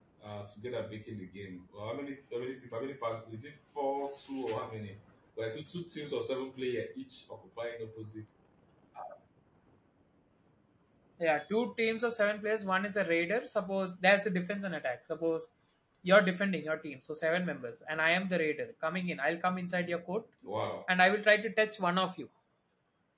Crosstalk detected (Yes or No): No